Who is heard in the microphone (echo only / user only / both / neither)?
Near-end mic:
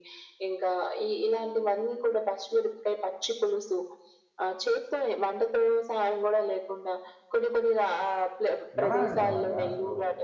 both